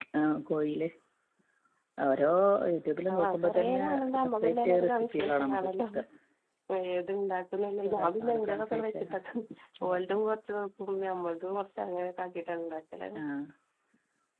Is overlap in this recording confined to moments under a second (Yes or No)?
No